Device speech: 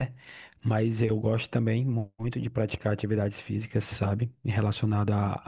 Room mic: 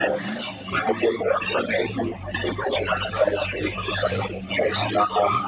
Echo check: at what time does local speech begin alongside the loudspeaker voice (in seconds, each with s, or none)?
none